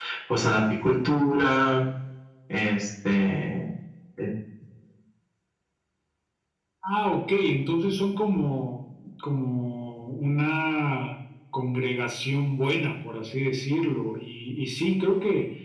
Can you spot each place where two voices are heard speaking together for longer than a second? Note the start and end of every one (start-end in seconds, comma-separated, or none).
none